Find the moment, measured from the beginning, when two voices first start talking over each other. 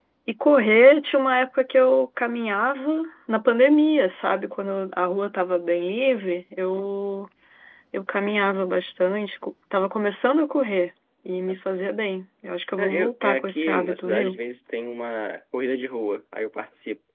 12.8 s

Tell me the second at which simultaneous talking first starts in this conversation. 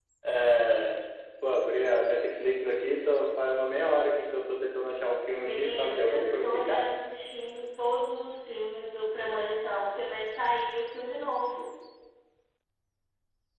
5.4 s

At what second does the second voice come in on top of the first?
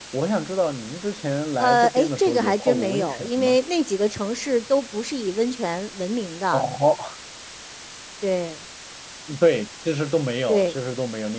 1.6 s

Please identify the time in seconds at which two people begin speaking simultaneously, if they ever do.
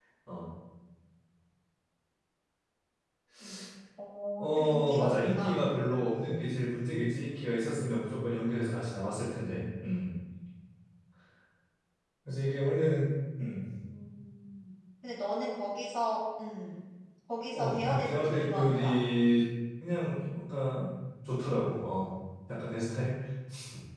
4.4 s

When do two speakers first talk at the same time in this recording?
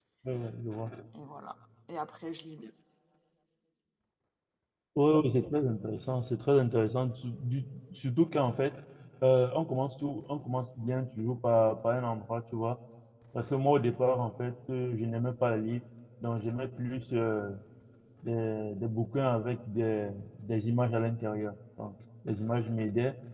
none

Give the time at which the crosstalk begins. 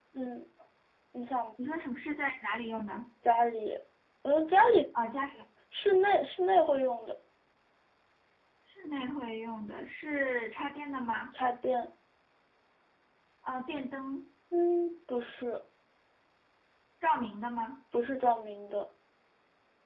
none

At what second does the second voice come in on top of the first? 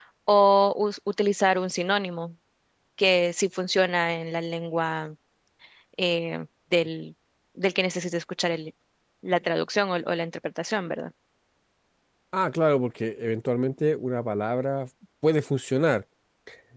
none

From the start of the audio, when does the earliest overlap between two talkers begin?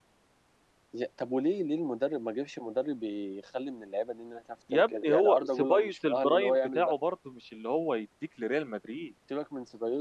4.7 s

